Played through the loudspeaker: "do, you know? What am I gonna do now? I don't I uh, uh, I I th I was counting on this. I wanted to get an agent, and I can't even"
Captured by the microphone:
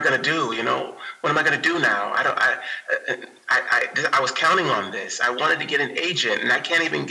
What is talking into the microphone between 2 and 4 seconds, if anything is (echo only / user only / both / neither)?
echo only